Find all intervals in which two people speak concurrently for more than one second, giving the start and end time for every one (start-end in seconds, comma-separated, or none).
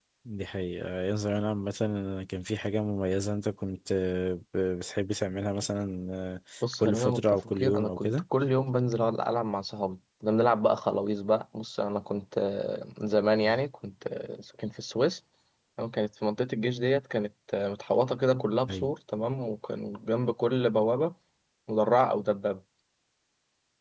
6.8-8.2